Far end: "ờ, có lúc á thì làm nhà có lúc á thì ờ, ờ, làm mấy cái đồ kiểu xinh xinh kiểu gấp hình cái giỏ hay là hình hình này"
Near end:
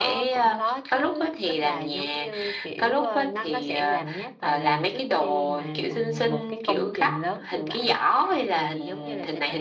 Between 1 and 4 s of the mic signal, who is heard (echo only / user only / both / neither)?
both